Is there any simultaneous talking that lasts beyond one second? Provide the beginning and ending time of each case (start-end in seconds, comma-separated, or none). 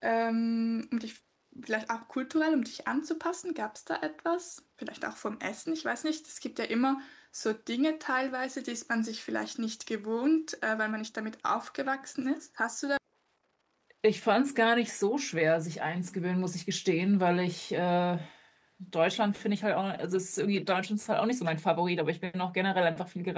none